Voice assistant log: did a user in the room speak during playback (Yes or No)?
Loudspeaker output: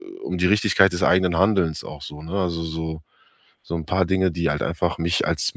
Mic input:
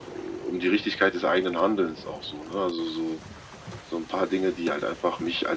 No